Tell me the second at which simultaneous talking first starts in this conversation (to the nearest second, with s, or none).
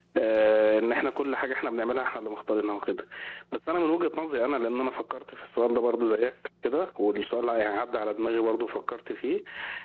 none